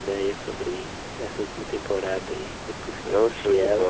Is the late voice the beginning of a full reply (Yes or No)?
Yes